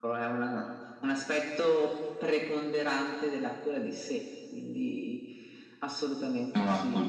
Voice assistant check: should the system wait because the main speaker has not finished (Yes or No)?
No